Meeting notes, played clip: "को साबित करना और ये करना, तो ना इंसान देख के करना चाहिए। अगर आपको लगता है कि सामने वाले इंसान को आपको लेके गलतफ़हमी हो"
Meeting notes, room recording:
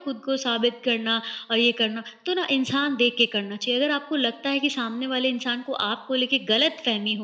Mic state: echo only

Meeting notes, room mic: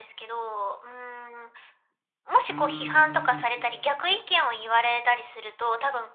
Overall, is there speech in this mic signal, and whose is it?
both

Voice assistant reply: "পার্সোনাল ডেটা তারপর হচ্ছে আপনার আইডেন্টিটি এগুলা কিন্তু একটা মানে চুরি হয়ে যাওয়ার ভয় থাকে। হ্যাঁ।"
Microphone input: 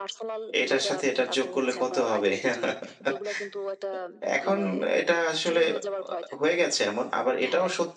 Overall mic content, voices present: both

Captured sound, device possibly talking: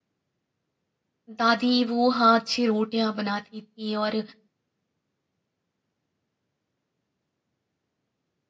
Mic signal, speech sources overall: user only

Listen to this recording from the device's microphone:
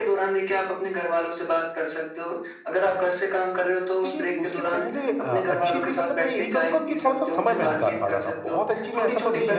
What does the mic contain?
both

